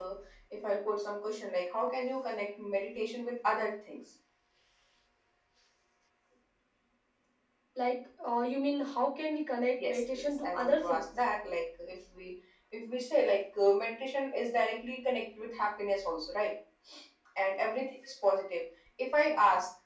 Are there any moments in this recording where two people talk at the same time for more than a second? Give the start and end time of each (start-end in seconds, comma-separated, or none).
9.8-11.1